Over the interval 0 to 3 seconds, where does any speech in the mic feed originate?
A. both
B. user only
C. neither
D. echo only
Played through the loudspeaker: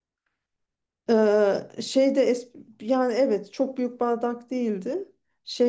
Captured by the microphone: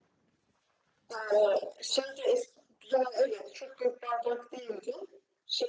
D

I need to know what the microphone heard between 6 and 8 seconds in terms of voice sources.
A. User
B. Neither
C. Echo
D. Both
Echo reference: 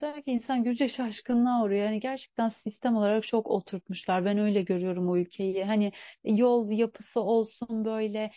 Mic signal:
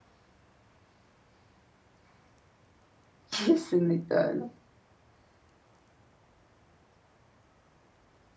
B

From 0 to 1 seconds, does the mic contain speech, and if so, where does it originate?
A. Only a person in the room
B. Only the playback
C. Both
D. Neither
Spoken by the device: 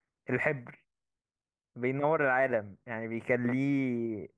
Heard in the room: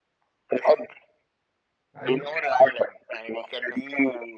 B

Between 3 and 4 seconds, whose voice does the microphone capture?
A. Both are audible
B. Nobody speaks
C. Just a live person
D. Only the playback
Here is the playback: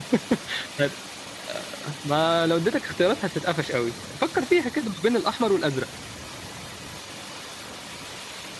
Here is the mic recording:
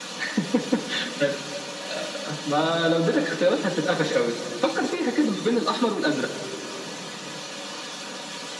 D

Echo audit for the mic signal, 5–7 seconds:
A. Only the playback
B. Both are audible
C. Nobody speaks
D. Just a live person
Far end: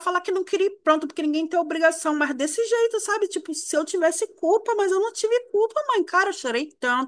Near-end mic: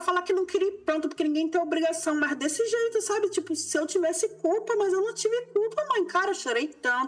A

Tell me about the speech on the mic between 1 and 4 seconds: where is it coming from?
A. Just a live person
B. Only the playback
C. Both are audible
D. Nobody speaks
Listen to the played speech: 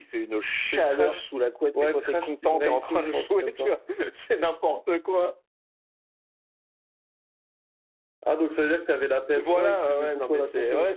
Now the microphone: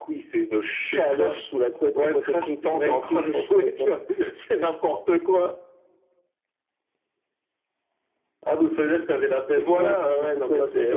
B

